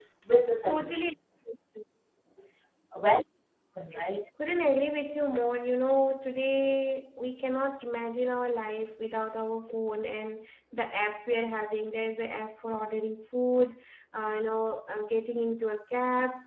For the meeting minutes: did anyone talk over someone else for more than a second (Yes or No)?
No